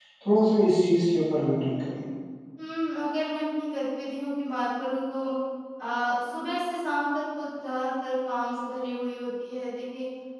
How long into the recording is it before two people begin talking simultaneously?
none

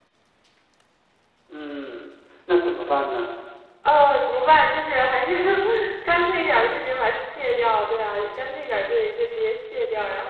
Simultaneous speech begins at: none

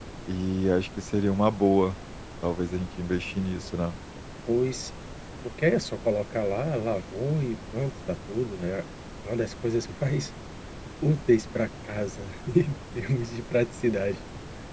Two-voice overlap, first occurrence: none

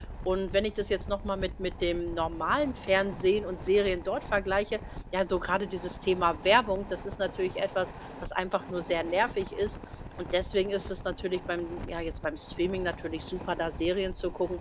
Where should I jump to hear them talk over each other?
none

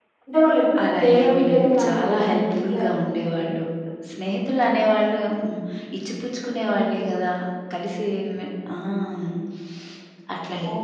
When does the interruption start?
0.8 s

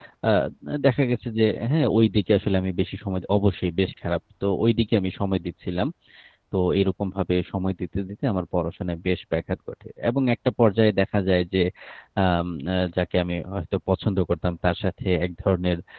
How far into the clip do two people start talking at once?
none

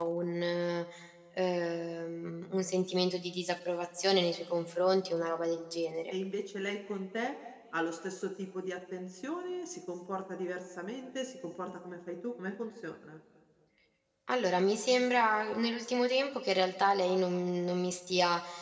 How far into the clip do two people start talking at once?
none

